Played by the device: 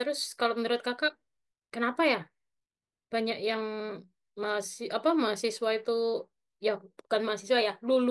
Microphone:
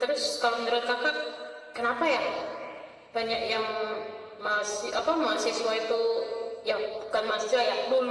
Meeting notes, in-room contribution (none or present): none